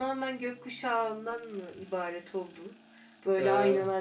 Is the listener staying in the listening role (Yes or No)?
Yes